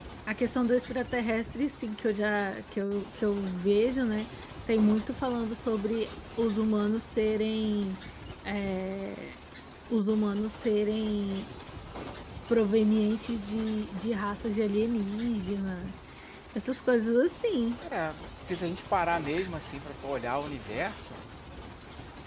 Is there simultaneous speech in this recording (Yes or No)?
No